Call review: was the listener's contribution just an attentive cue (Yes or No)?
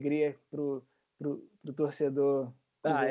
No